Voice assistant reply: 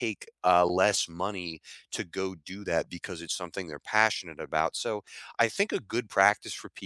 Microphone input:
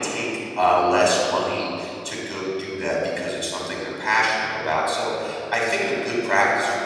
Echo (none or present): present